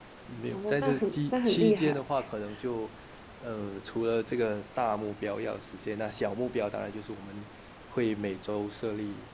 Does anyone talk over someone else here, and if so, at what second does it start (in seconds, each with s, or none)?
0.5 s